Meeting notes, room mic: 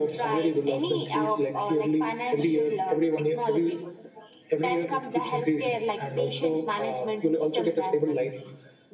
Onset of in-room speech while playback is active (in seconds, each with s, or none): none